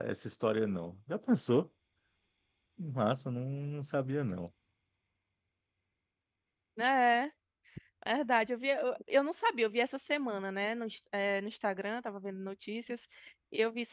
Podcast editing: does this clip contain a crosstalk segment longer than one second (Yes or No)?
No